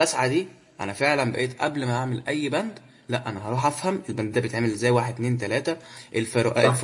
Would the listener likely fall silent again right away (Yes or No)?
Yes